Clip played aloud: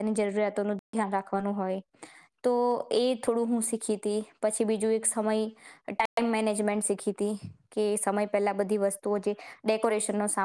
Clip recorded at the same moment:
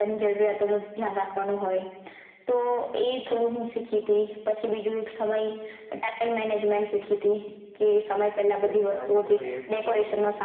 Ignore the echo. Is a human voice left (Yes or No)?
Yes